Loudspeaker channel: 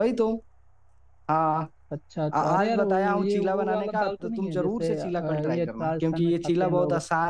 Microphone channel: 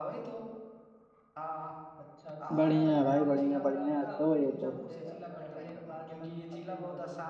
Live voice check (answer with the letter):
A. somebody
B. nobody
A